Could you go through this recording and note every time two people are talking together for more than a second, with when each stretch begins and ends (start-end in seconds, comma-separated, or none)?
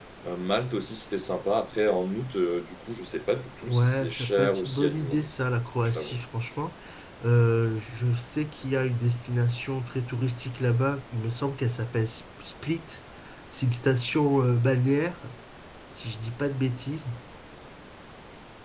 3.6-5.3